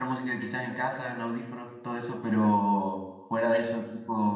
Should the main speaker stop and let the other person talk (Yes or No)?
No